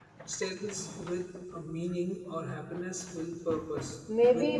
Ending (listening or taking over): taking over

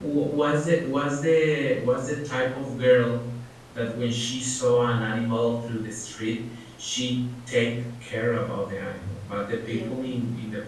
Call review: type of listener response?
listening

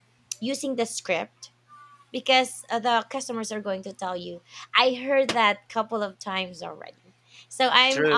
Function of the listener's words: listening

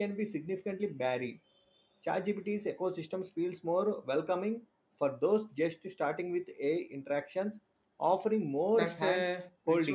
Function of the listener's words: taking over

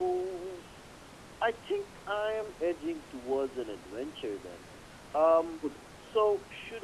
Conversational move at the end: listening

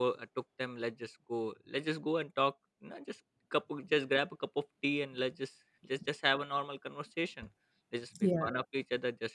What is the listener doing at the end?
listening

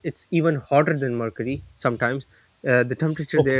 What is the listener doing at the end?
listening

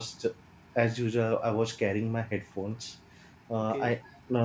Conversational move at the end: listening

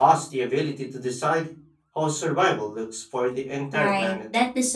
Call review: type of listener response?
taking over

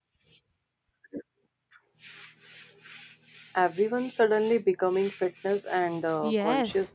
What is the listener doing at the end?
taking over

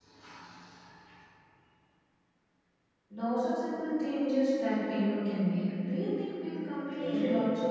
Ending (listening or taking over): taking over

